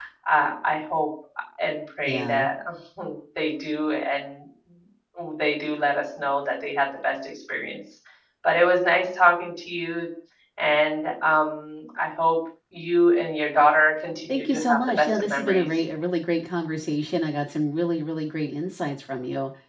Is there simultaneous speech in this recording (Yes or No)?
Yes